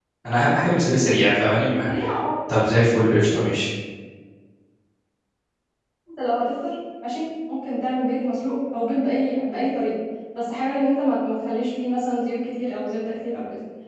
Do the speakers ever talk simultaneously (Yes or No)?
No